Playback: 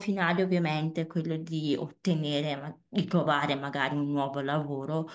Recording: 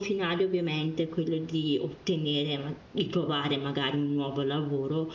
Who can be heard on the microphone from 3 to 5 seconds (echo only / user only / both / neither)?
echo only